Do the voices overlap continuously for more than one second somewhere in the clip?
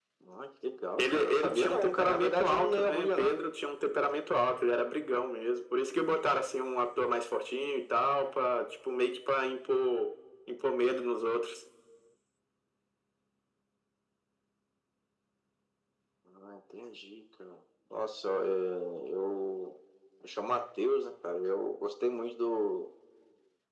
Yes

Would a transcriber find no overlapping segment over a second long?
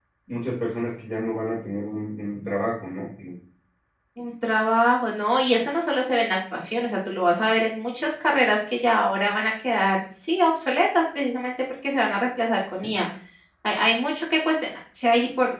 Yes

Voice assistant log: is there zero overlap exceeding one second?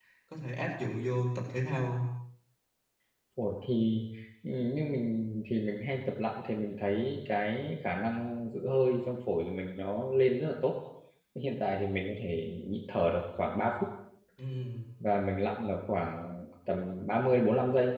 Yes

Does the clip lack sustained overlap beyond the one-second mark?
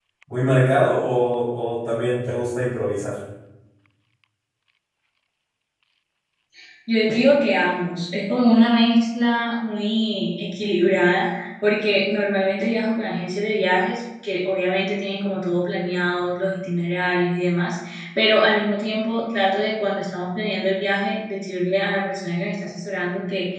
Yes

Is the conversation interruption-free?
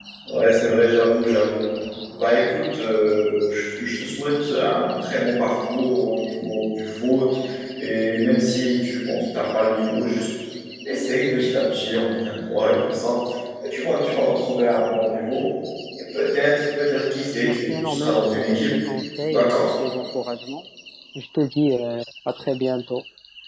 No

